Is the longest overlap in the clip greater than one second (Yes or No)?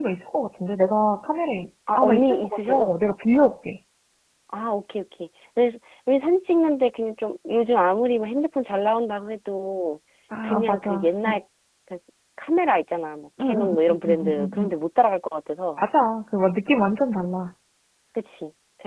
Yes